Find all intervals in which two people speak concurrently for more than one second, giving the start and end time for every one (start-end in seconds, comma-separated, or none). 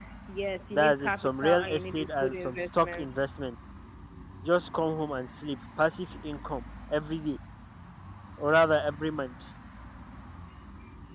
0.7-3.1